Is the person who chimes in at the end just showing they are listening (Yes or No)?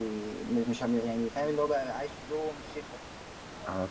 No